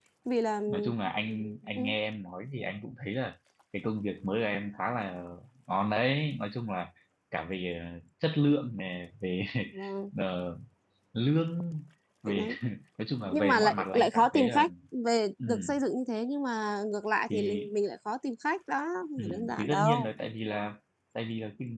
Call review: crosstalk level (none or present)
present